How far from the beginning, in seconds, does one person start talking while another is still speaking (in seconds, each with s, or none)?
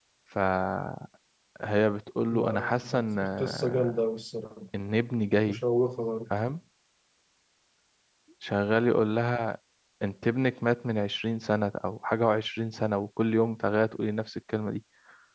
2.3 s